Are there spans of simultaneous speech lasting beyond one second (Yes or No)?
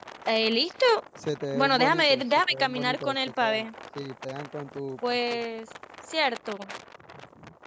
Yes